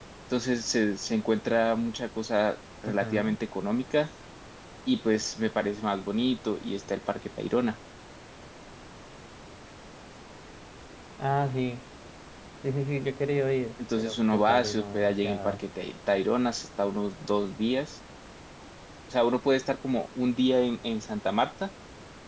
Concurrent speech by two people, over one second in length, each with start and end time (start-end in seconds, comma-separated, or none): 14.0-15.6